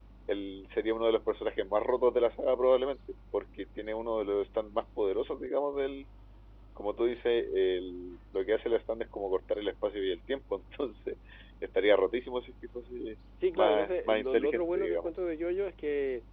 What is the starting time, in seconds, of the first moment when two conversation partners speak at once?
13 s

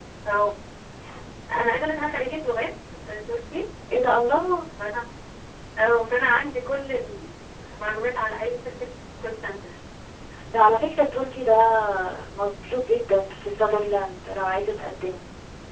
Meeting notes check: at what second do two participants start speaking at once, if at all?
none

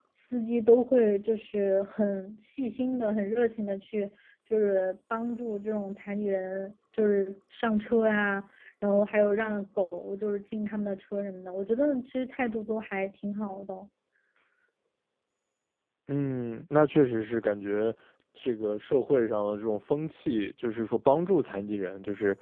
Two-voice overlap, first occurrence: none

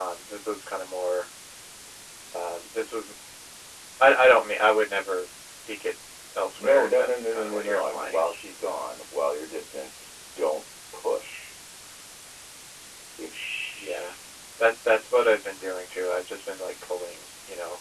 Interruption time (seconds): 7 s

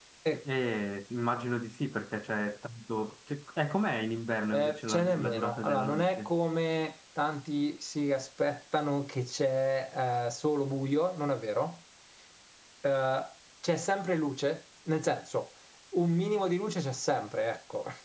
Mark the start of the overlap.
5 s

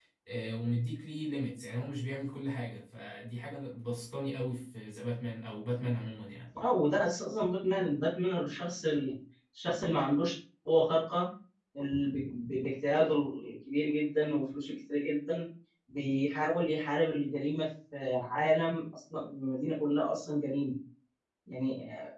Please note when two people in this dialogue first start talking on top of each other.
none

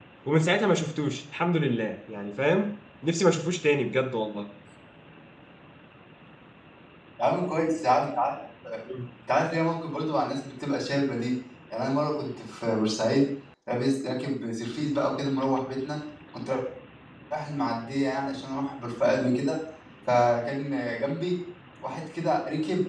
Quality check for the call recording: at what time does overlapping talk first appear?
none

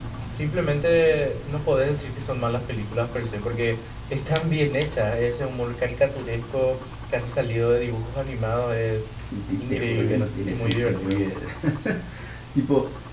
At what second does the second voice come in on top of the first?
10 s

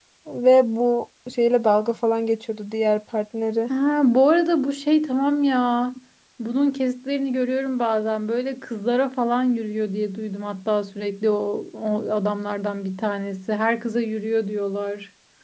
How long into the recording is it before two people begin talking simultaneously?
none

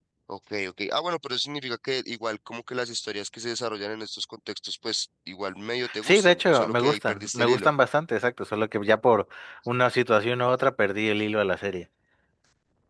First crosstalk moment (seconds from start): 6 s

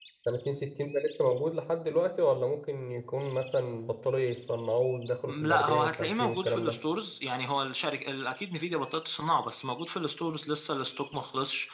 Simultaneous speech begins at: 5 s

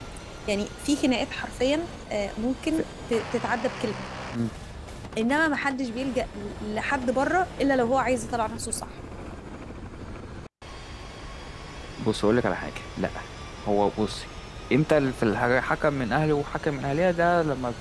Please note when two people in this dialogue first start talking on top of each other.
none

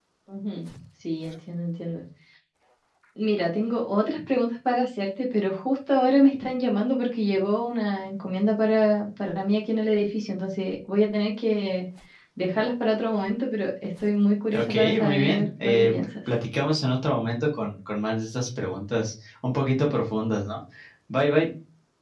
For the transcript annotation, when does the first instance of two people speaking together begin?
15 s

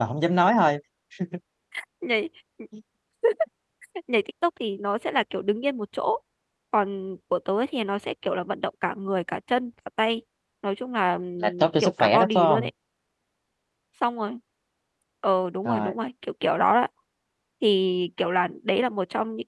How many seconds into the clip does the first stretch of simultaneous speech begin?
11 s

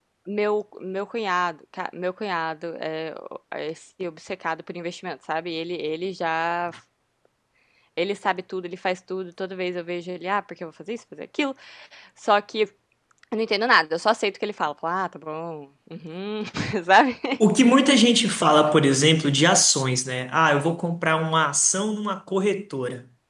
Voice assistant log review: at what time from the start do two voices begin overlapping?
none

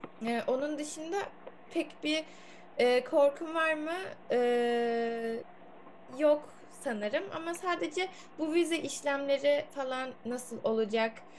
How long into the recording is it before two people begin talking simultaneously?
none

